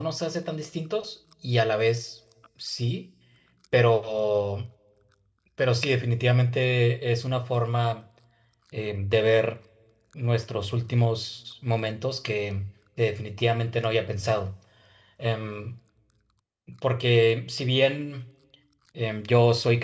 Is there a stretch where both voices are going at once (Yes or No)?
No